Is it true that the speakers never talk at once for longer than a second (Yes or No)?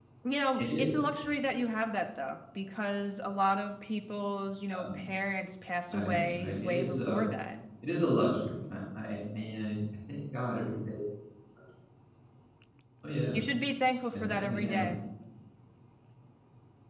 No